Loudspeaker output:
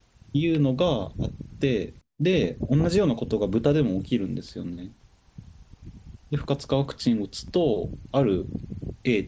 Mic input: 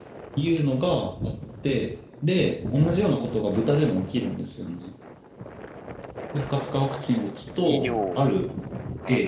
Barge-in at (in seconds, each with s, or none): 7.6 s